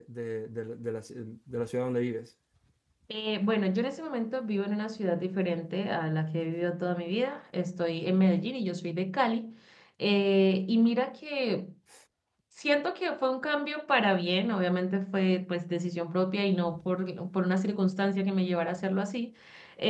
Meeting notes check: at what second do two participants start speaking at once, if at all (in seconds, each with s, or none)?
none